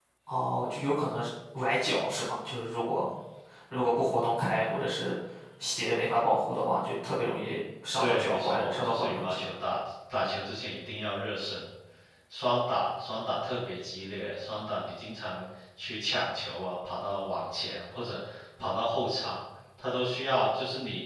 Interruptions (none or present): present